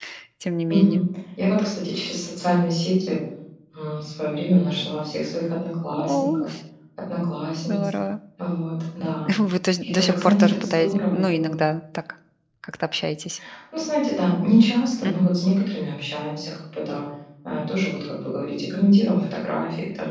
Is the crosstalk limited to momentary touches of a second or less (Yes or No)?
No